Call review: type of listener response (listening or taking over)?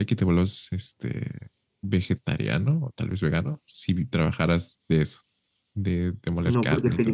taking over